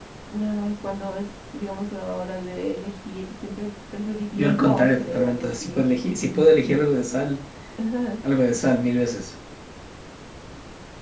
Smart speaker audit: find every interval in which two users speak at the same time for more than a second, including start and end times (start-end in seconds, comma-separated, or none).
4.3-5.8